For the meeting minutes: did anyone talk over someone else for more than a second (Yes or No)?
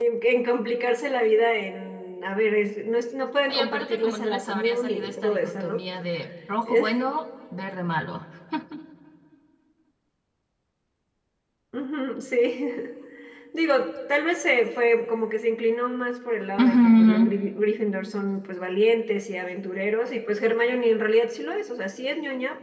Yes